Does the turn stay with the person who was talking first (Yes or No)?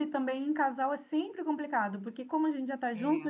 Yes